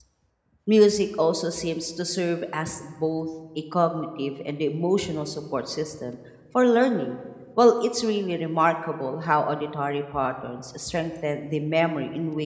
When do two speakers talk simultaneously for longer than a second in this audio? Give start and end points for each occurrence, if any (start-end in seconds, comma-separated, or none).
none